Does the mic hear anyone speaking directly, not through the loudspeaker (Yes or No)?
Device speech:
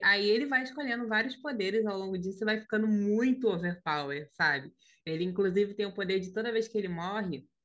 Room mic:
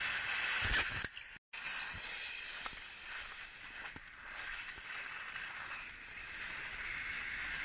No